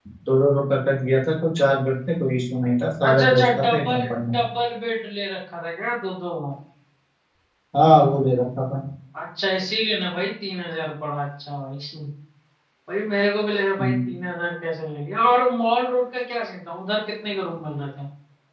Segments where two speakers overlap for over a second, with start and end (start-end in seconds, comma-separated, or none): 3.1-4.4